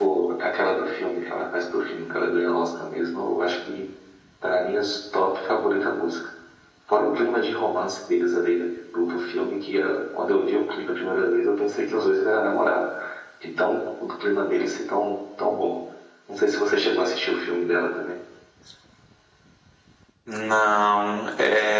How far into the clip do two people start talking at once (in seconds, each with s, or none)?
none